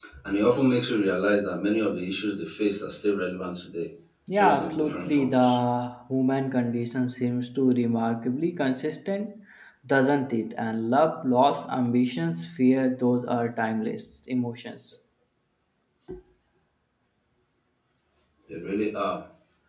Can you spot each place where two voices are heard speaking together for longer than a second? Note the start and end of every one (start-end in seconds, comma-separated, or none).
4.3-5.6